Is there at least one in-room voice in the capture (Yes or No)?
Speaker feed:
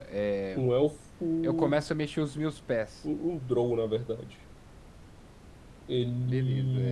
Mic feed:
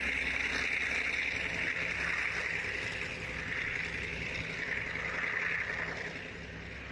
No